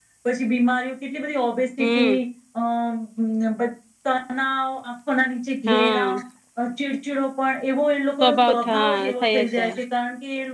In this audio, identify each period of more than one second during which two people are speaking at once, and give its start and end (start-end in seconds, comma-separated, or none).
8.2-9.7